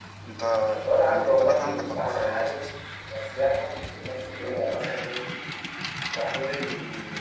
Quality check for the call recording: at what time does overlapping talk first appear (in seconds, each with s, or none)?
1.0 s